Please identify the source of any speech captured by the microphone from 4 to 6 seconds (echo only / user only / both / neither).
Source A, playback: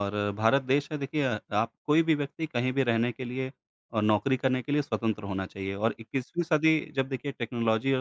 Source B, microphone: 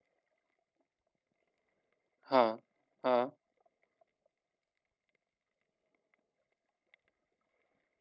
neither